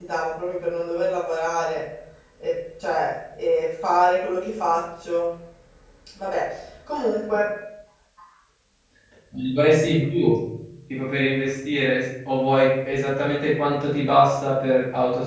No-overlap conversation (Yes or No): Yes